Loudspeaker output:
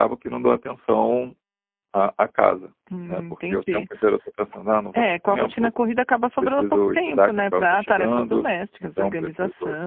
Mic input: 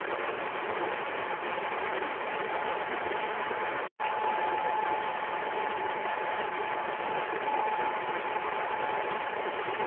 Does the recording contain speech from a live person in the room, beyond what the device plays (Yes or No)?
No